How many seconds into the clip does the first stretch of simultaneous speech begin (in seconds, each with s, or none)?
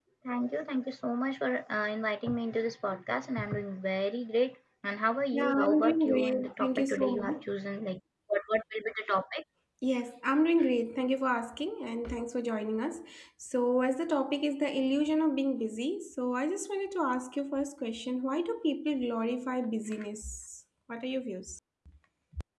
5.3 s